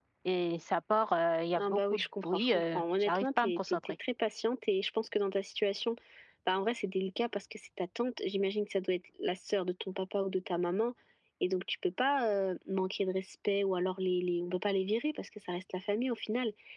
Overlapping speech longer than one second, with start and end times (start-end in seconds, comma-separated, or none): 1.6-3.9